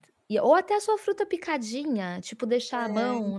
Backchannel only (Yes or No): Yes